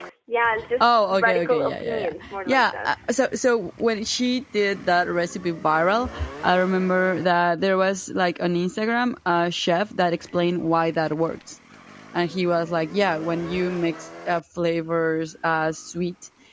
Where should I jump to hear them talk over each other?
0.8 s

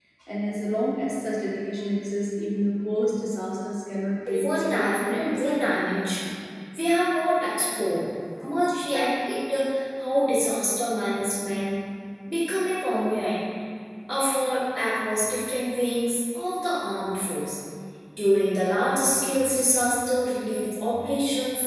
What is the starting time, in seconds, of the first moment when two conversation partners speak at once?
4.3 s

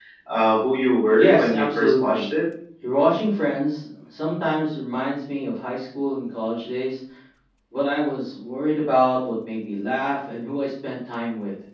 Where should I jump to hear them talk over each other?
1.2 s

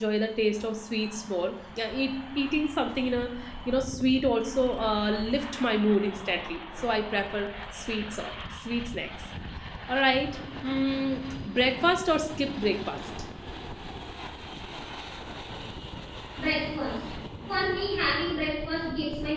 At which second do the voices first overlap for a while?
none

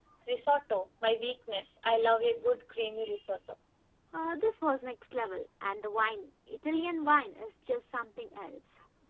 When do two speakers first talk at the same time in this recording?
none

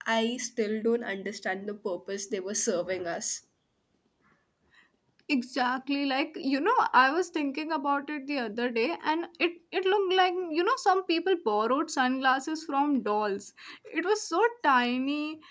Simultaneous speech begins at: none

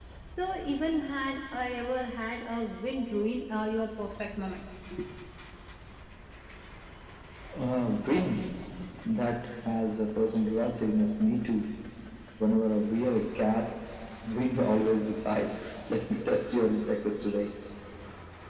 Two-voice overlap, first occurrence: none

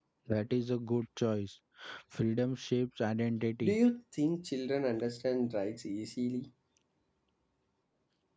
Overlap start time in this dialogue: none

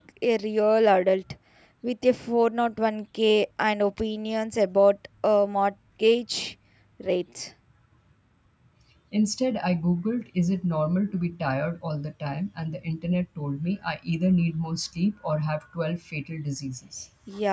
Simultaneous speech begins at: none

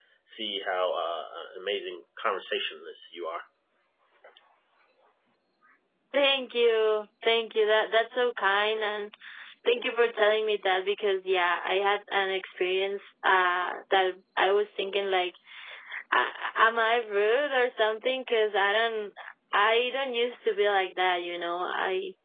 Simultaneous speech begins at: none

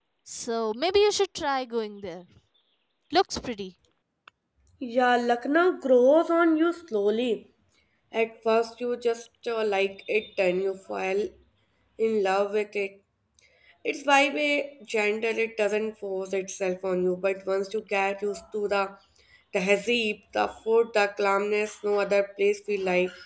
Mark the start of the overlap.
none

